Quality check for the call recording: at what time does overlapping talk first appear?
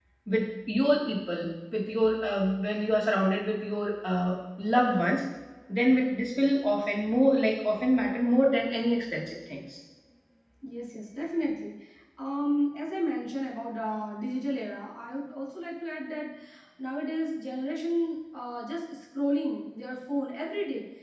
none

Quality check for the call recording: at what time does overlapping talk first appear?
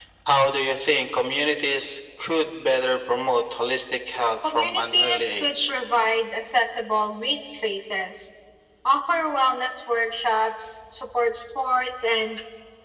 4.4 s

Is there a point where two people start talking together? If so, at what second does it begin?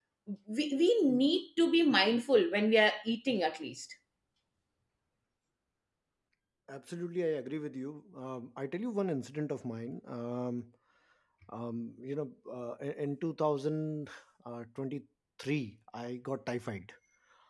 none

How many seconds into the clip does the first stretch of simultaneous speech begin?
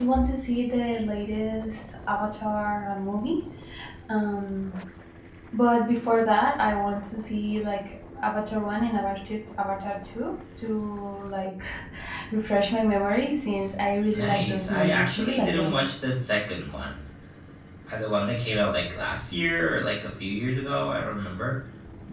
14.1 s

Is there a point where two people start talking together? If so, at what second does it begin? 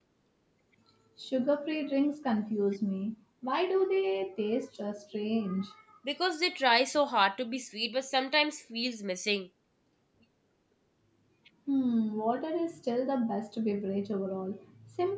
none

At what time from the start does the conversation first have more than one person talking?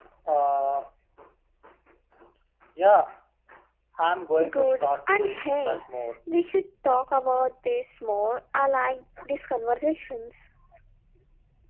4.5 s

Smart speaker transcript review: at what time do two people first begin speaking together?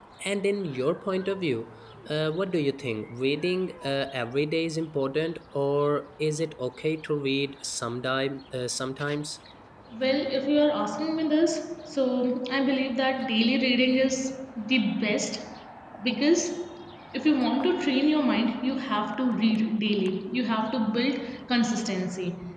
none

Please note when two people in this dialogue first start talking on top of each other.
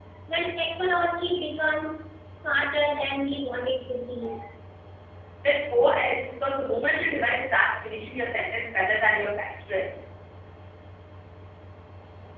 none

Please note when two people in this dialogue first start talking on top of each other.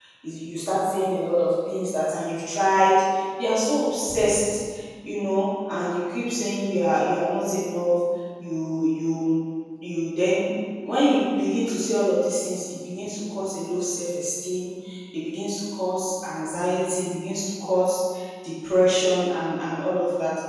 none

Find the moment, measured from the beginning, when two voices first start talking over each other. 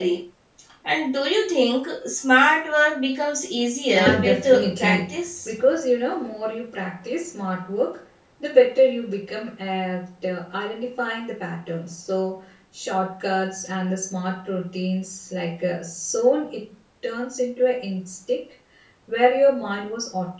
3.9 s

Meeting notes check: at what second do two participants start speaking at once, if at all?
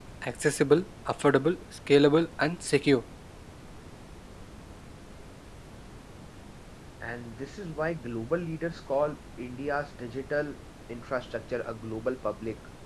none

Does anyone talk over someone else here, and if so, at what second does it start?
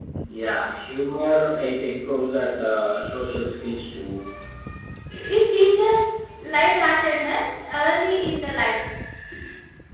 none

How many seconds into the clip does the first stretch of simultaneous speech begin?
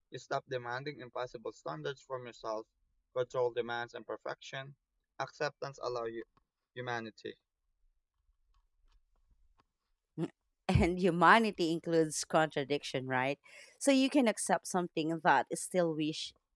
none

